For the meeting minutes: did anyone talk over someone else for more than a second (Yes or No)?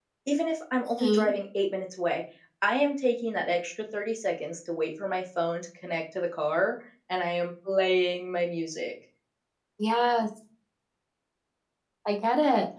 No